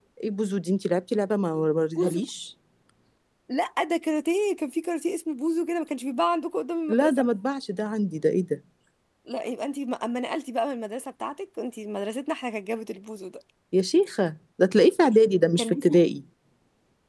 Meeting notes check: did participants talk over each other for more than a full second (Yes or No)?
No